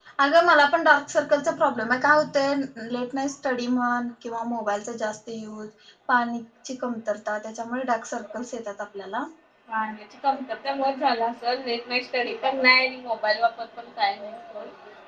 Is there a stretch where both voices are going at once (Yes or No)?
No